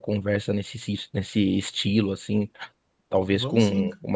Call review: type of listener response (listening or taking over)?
listening